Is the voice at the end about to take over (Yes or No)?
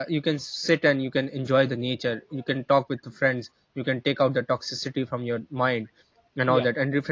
No